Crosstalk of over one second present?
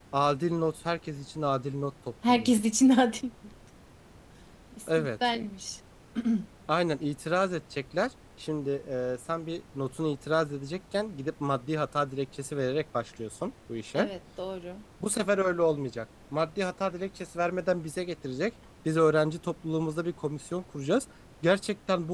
No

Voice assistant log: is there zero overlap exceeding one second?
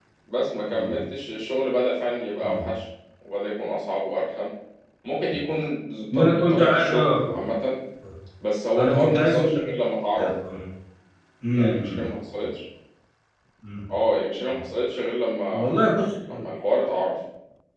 No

